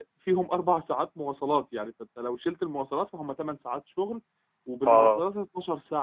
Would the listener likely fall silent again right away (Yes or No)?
Yes